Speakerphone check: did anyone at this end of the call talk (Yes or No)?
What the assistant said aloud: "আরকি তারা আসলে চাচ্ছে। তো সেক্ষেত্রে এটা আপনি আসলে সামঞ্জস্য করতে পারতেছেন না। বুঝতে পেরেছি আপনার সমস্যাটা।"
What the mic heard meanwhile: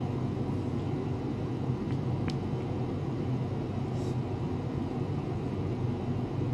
No